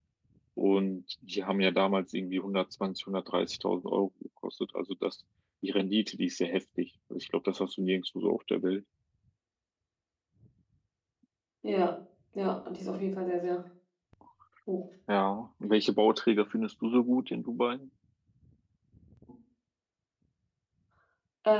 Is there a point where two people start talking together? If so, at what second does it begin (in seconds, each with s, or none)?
none